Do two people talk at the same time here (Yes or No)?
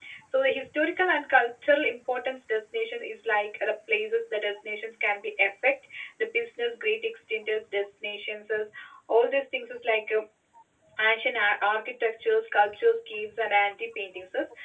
No